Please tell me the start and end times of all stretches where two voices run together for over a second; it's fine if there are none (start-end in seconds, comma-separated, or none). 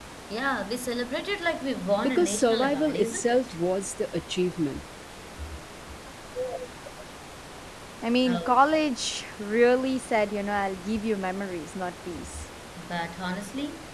2.0-3.4